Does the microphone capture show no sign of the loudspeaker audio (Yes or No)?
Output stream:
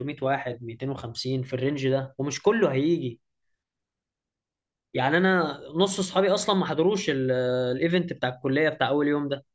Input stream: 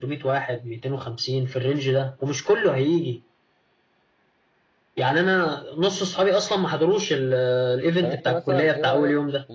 No